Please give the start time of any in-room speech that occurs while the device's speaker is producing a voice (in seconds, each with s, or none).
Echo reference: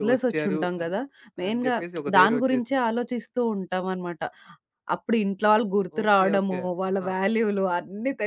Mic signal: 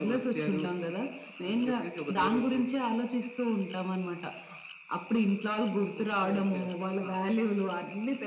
none